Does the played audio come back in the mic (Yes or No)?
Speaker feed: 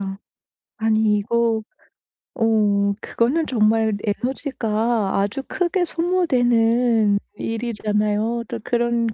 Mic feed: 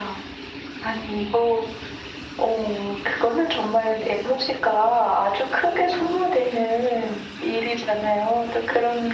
Yes